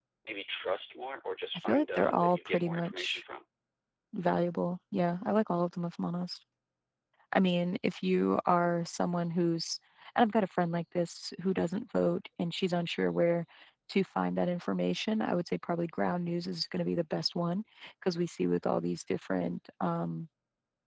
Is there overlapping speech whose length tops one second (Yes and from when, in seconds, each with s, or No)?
Yes, from 1.7 s